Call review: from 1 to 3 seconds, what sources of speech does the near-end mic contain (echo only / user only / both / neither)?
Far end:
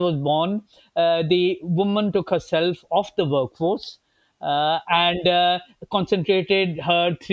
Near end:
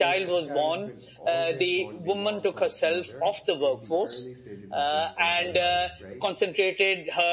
both